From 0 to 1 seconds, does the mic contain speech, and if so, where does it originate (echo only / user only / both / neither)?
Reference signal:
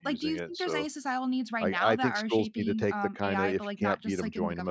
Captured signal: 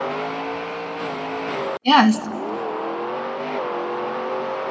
neither